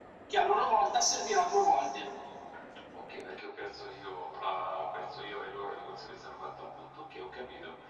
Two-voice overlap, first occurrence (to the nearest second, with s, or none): none